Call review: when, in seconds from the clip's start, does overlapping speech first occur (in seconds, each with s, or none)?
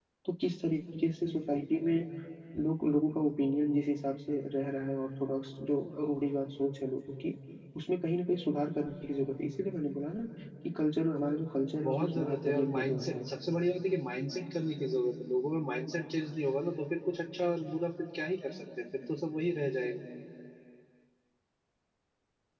11.8 s